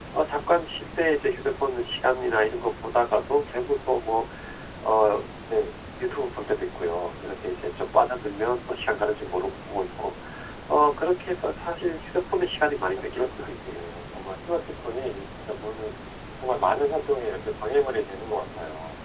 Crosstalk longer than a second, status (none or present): present